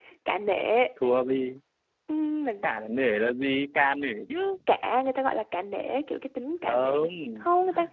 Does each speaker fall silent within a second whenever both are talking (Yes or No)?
Yes